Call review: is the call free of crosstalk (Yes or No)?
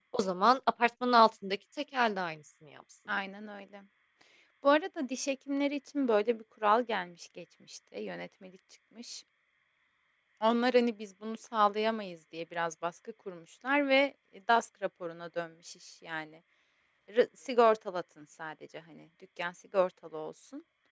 Yes